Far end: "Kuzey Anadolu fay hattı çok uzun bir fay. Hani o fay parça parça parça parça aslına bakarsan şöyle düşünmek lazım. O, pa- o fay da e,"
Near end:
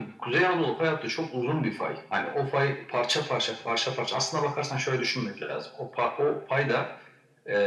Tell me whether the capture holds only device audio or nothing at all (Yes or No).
Yes